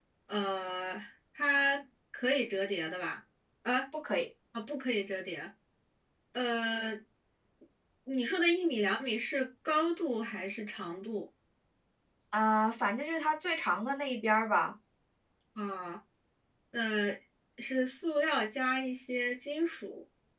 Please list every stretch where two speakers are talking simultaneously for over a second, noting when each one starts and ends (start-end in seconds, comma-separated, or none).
none